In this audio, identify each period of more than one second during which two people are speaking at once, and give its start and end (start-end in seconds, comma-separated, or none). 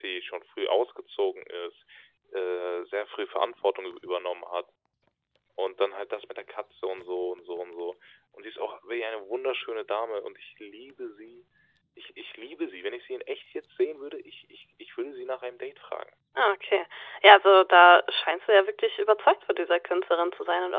none